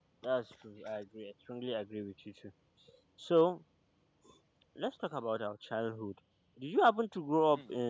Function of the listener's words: listening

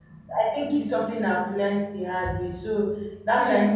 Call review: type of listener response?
listening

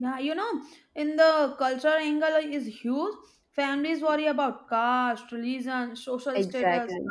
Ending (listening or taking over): listening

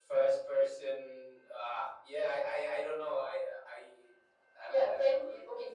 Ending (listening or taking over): taking over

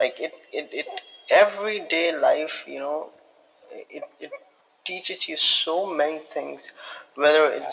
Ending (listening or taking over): listening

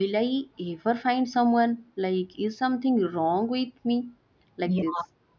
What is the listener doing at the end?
taking over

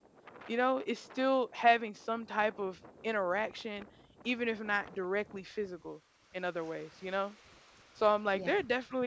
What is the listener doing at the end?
listening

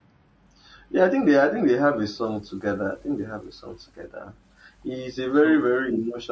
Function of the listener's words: listening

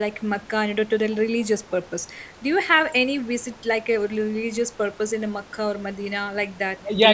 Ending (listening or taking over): taking over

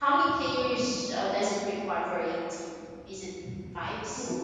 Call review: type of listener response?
taking over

